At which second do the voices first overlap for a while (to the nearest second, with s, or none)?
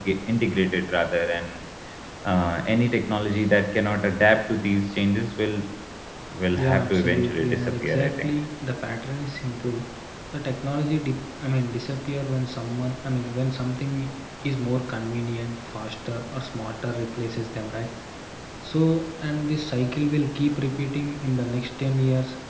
7 s